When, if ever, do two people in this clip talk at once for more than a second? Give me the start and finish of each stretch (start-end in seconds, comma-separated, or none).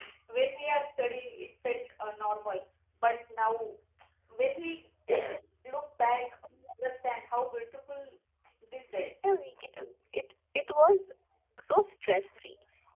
none